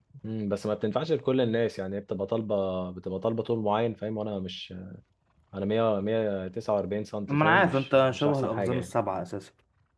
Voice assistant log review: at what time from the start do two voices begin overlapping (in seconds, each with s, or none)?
7.3 s